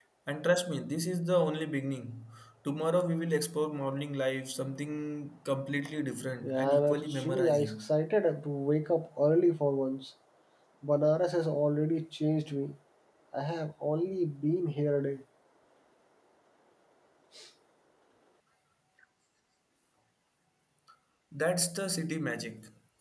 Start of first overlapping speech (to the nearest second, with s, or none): 6 s